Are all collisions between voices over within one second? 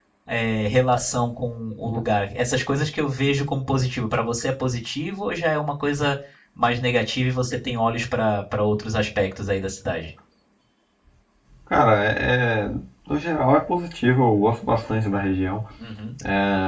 Yes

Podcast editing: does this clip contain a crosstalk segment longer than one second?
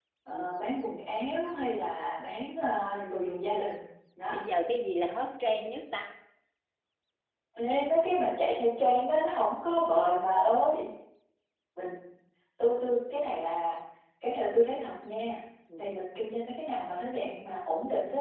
No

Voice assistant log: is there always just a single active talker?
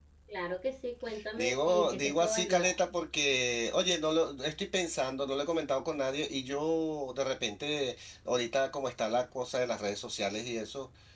No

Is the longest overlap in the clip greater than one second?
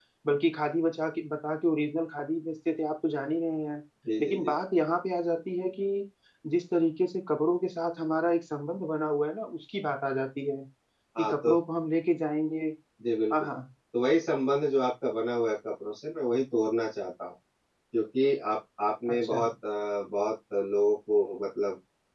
No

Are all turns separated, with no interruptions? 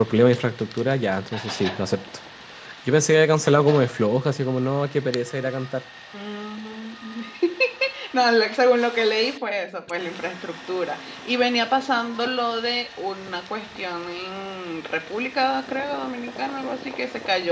Yes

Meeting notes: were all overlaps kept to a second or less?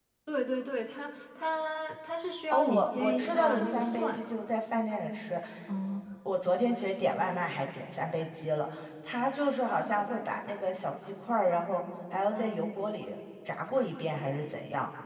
No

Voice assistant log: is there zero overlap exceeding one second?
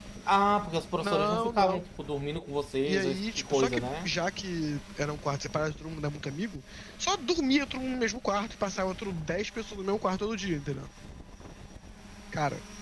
No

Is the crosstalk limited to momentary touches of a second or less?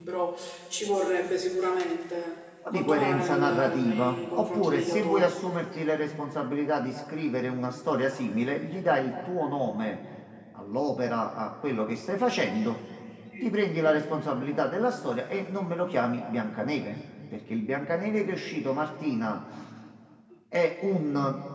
No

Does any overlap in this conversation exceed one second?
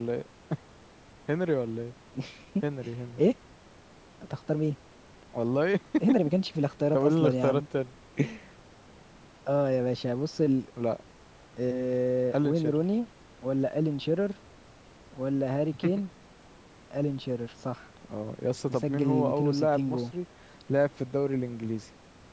Yes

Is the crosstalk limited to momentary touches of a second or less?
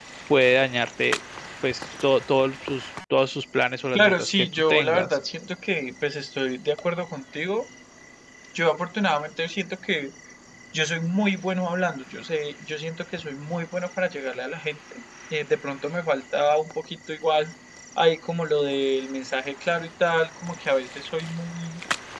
No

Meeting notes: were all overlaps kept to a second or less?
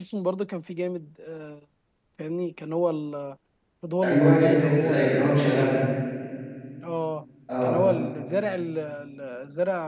No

